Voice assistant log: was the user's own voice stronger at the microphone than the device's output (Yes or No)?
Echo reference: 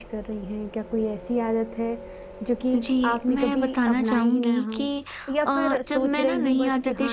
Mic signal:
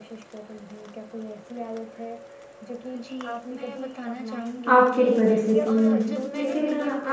Yes